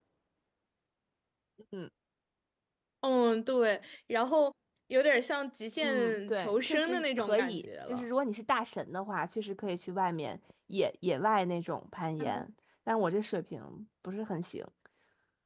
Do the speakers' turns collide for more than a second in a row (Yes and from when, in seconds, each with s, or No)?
Yes, from 5.8 s